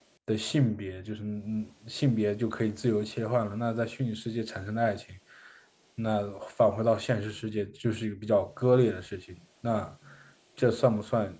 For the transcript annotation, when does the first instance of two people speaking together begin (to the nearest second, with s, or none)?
none